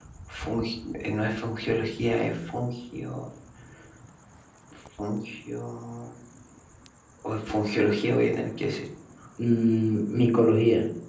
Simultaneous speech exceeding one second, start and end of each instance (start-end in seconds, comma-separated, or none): none